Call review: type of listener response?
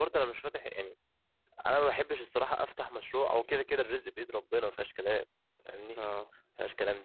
listening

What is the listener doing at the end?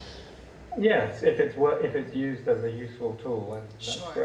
taking over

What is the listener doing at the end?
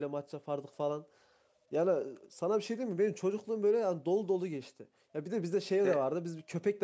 listening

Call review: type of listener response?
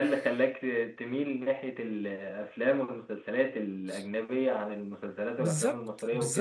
taking over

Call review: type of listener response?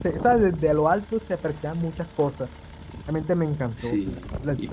taking over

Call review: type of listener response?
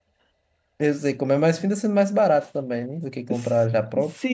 taking over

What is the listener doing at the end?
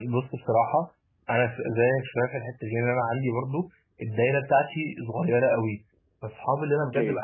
listening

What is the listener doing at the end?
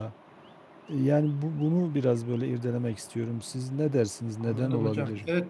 taking over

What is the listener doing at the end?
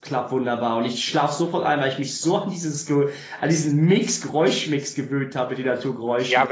taking over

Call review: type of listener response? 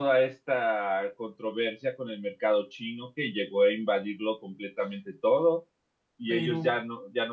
listening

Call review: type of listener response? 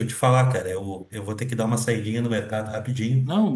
listening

